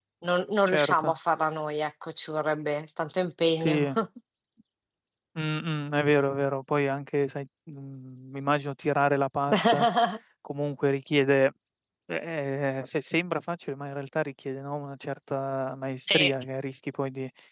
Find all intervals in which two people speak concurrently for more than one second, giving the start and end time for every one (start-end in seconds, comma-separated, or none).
none